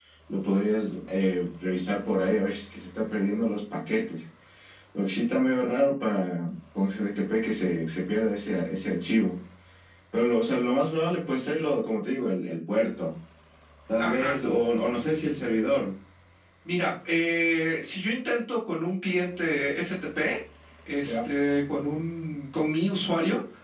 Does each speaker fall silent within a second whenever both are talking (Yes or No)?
Yes